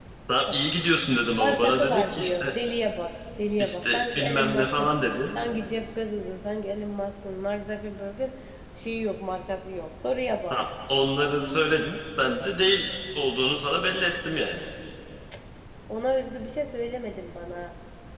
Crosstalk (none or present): present